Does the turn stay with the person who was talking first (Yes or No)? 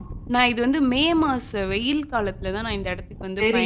No